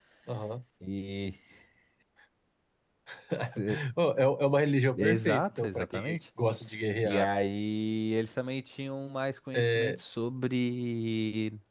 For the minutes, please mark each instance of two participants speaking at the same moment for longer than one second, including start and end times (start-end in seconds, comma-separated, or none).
5.0-6.2